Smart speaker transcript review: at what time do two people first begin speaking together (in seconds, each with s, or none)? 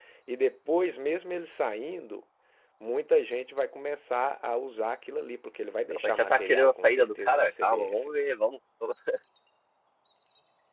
5.9 s